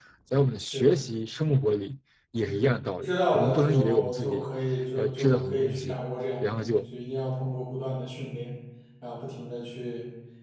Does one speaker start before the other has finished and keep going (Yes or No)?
Yes